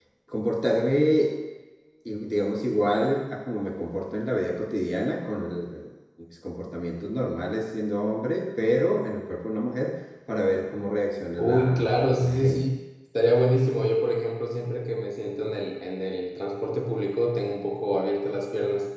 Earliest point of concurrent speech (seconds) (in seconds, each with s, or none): 11.4 s